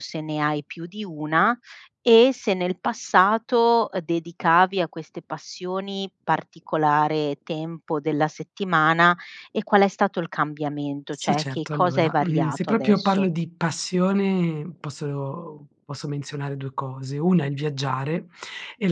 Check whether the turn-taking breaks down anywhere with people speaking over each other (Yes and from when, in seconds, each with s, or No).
Yes, from 11.1 s